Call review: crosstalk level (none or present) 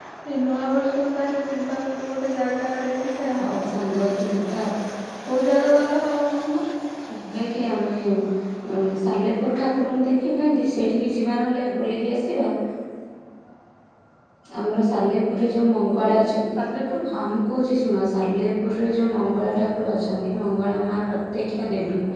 none